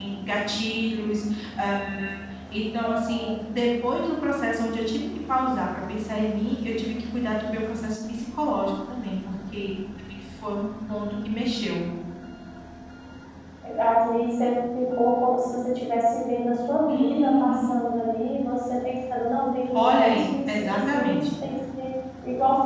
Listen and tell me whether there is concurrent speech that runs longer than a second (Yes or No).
Yes